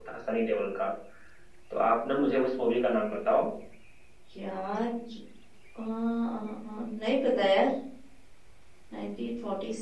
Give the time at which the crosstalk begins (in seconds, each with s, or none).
none